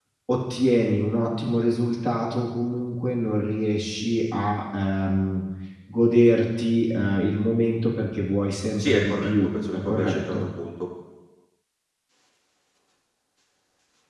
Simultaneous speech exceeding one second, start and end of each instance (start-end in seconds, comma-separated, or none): 8.8-10.5